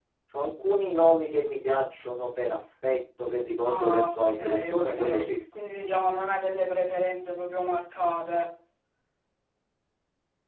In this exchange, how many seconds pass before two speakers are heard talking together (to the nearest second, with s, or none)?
4 s